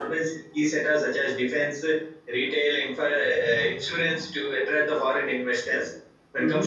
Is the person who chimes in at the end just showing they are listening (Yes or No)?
Yes